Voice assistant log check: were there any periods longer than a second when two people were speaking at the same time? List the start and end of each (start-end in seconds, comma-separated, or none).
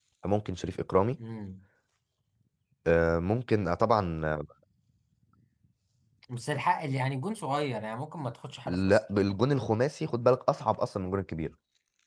none